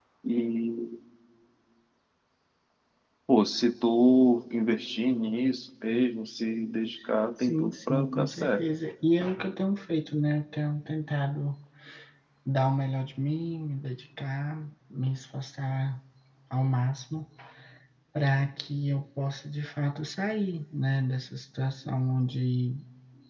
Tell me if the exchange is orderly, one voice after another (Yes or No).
No